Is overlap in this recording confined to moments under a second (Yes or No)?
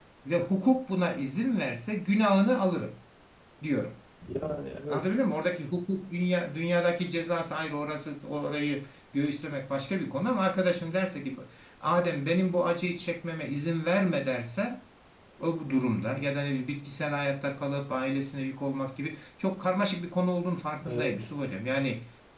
Yes